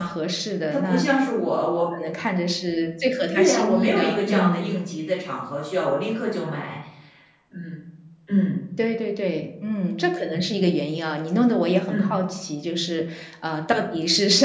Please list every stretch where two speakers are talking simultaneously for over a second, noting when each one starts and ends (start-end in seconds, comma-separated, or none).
3.3-4.7